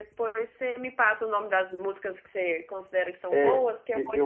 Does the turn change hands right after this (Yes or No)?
Yes